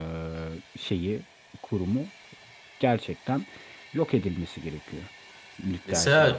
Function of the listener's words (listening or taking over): taking over